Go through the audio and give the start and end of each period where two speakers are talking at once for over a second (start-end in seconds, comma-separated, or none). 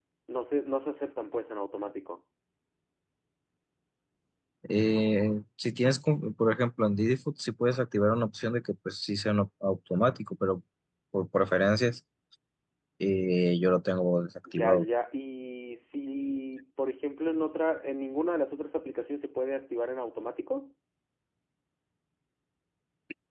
none